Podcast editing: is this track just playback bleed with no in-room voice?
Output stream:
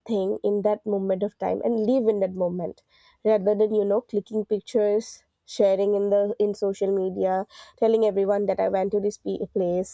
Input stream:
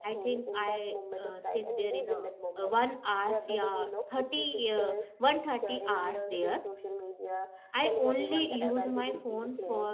No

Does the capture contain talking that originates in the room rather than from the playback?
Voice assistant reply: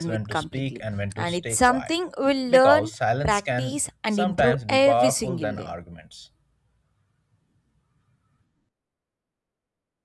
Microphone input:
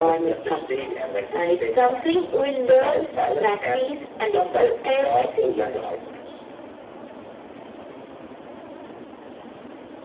No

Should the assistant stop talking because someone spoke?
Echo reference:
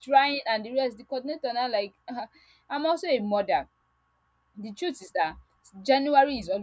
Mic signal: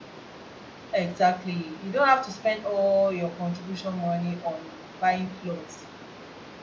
Yes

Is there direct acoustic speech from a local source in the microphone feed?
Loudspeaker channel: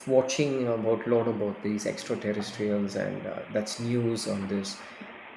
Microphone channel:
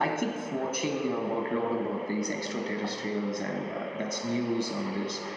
No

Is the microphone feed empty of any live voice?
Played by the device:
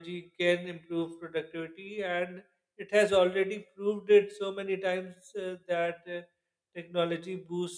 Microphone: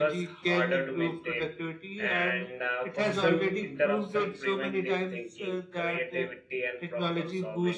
No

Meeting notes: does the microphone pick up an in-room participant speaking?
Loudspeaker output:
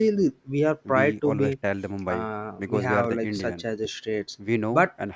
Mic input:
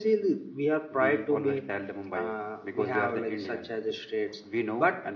No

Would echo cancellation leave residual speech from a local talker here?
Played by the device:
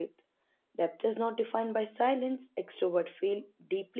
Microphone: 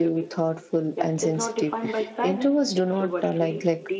Yes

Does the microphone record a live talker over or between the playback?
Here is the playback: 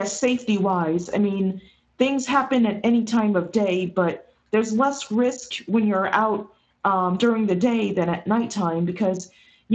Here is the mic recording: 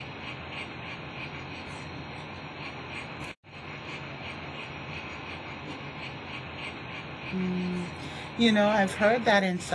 Yes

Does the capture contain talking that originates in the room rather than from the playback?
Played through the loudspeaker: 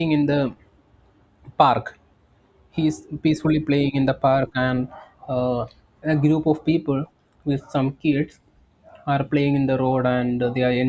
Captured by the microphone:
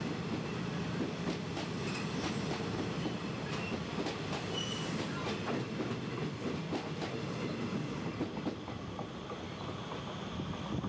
No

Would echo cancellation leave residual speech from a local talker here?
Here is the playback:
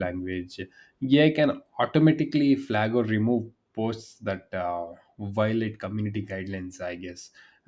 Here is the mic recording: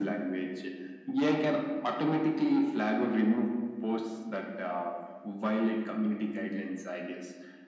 No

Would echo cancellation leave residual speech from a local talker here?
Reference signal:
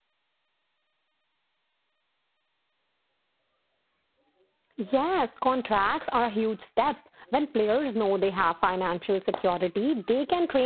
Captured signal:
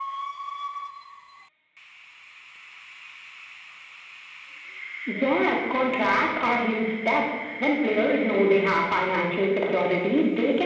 No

